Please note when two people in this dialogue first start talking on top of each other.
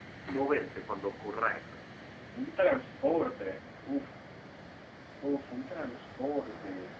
none

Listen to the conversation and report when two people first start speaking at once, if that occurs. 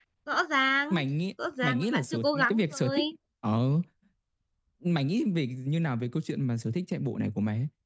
1.6 s

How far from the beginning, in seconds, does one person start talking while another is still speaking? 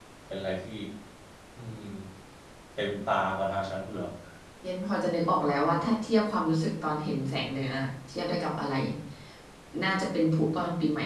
none

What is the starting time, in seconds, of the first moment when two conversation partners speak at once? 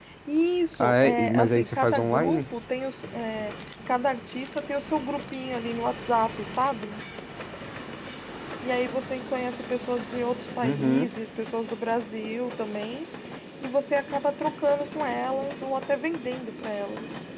0.8 s

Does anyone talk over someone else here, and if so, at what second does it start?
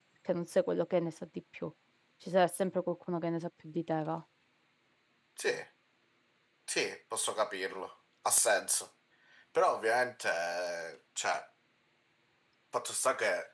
none

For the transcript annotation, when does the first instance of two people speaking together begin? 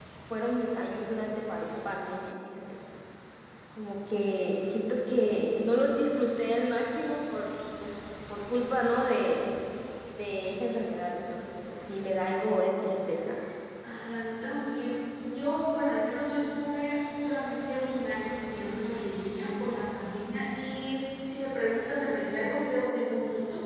none

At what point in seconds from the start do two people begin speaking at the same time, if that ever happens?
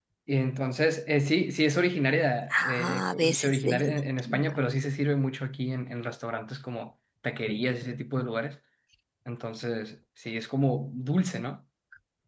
2.5 s

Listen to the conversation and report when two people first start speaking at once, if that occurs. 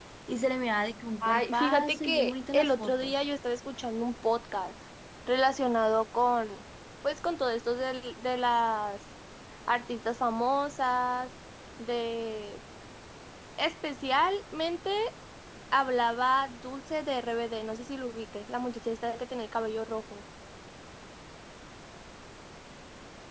1.2 s

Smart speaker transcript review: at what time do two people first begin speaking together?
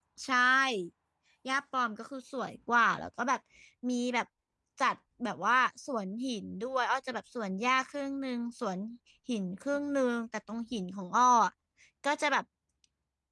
none

